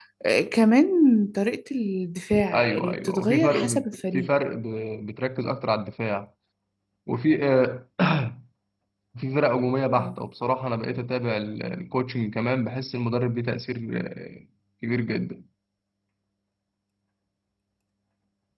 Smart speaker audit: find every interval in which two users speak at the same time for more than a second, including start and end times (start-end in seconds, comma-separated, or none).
2.5-4.3